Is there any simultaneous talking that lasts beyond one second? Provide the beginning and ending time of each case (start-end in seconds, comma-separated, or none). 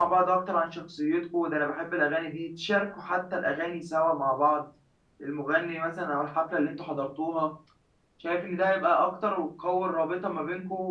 none